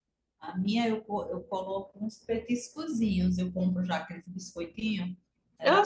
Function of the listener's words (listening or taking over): taking over